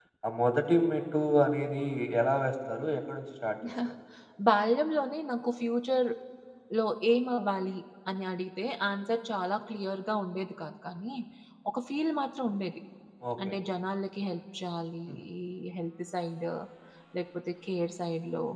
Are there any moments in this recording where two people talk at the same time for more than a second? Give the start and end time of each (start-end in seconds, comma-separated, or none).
none